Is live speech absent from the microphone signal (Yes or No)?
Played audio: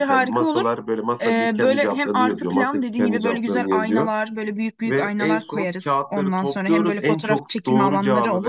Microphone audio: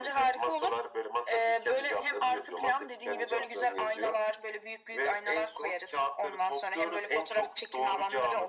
Yes